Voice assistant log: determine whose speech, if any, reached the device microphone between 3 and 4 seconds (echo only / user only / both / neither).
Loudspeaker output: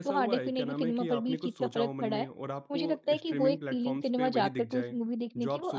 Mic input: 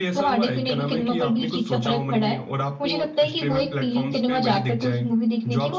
echo only